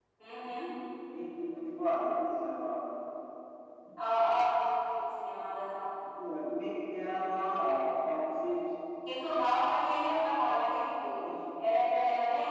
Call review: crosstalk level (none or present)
none